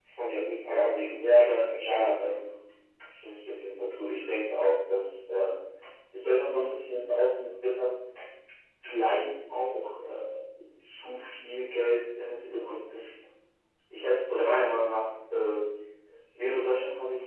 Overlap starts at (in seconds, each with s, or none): 0.7 s